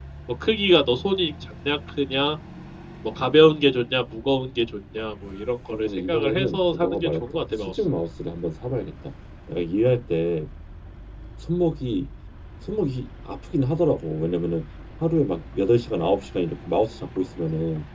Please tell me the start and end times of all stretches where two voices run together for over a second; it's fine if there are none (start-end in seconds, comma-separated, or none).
5.7-7.8